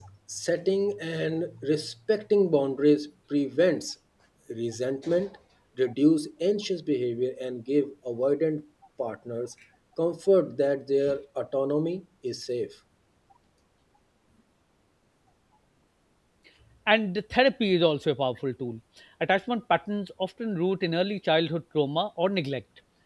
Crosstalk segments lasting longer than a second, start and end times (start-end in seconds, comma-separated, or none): none